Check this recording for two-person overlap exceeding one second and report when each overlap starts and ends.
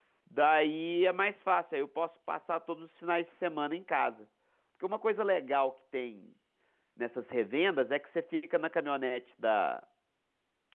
none

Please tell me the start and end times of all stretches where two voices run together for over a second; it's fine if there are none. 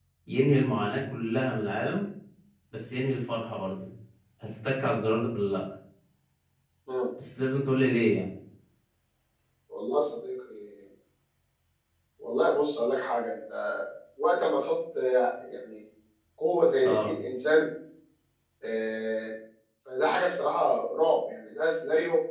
none

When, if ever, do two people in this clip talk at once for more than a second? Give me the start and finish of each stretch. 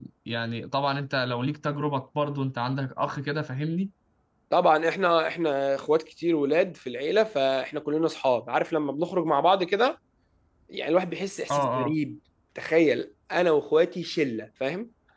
none

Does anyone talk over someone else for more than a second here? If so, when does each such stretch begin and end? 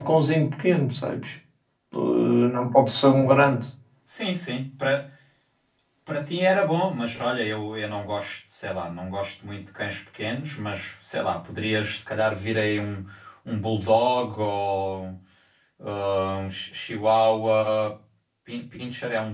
none

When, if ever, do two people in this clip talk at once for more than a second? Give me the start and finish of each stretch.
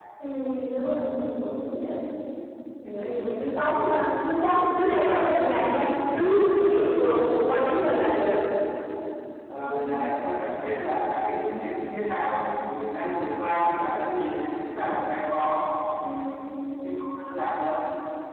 none

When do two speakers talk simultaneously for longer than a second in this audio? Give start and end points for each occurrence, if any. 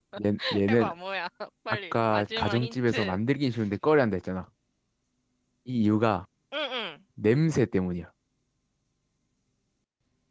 1.7-3.2

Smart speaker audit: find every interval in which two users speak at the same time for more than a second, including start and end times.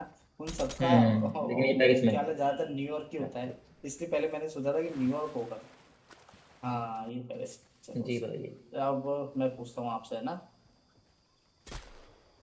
0.8-2.2

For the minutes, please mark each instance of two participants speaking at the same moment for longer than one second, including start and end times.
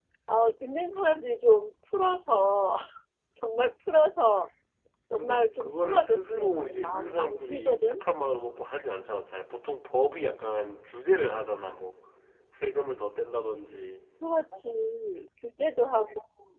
5.1-8.0

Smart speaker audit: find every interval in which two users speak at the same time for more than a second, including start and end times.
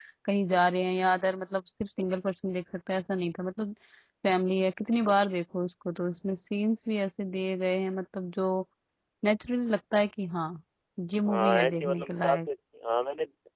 11.2-12.5

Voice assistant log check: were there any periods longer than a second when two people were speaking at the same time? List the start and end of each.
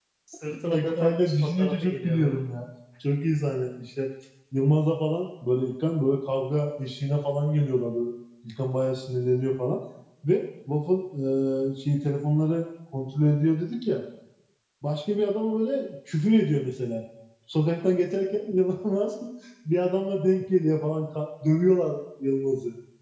0.7-2.4

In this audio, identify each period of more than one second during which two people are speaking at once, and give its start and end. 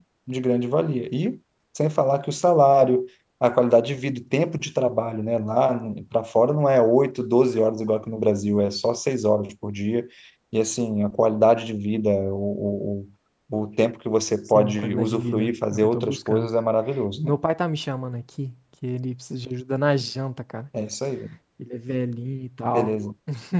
14.5-16.5

